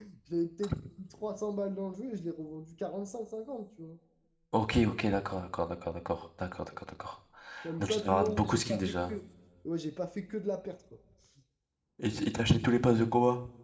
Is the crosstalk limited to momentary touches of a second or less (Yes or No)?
No